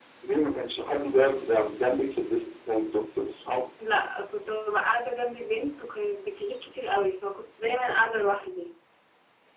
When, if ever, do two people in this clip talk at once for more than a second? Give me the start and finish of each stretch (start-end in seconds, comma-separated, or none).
none